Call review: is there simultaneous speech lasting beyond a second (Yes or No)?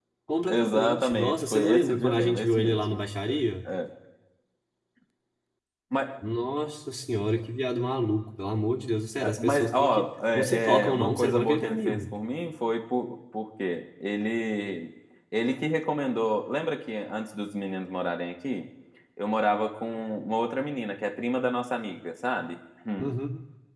Yes